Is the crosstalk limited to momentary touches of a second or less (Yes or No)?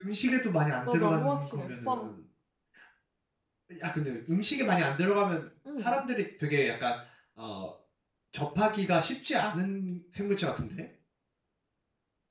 No